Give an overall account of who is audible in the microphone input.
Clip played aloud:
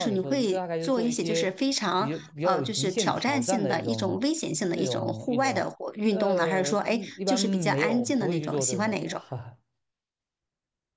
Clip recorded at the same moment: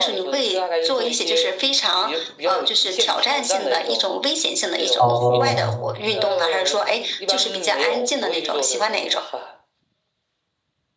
both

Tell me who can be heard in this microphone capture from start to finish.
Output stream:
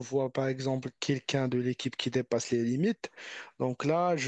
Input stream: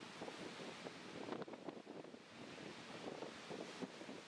neither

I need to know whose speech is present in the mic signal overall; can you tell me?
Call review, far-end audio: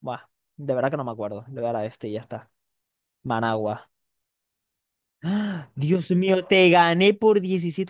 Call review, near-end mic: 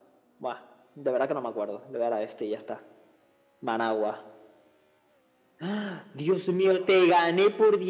echo only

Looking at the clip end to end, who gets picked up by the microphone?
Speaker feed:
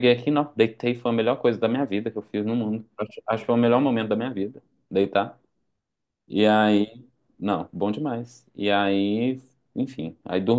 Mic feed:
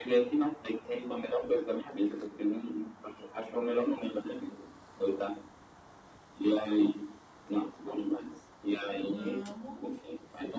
both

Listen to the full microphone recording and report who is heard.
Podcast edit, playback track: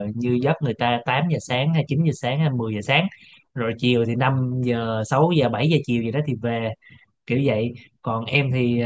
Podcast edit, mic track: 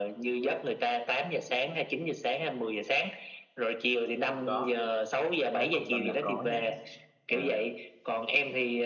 both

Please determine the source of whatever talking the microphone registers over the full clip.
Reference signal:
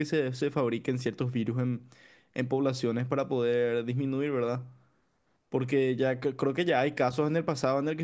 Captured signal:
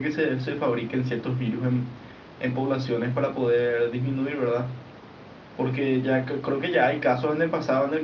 echo only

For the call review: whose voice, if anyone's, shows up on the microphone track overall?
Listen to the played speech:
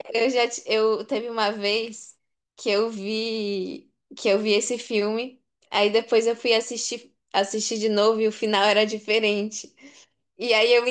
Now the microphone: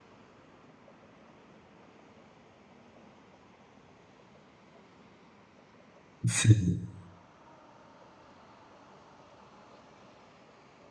user only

